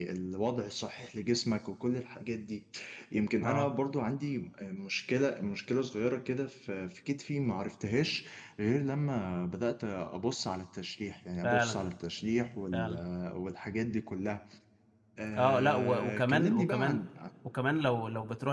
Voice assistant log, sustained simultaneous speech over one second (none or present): present